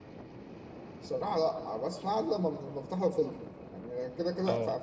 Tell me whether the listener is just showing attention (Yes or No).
Yes